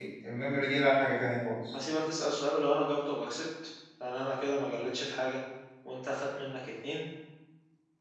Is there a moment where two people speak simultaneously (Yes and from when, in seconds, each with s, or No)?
No